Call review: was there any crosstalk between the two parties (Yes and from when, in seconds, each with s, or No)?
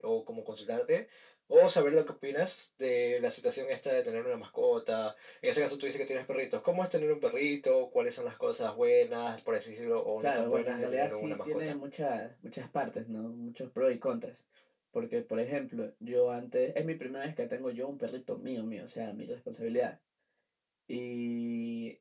Yes, from 10.2 s